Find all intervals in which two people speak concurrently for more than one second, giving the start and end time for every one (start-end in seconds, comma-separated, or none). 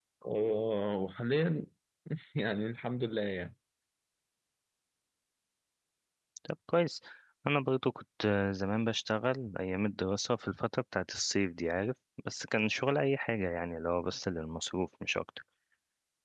none